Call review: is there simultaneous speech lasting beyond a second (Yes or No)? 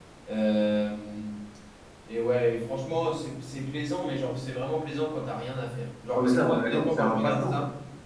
Yes